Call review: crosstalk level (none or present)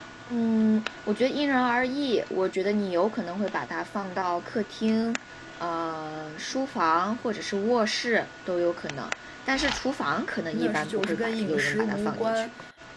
present